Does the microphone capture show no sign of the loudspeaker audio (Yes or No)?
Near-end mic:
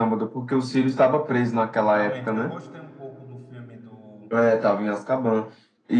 No